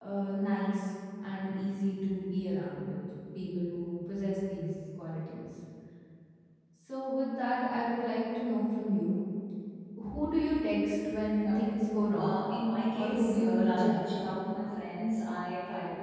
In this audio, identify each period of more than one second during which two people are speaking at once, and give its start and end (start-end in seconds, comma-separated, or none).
12.9-14.3